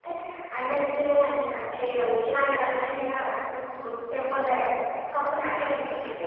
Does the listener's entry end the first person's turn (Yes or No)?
Yes